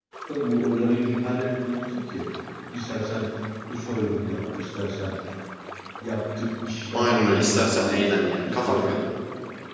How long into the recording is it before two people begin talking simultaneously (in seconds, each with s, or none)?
6.9 s